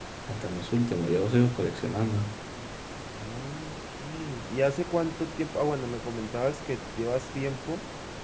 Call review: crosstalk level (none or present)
none